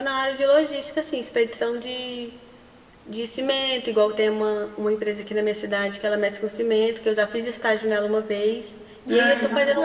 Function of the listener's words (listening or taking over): listening